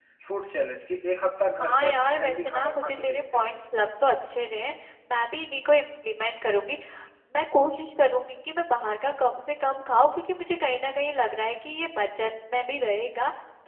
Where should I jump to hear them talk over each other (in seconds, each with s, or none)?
1.6 s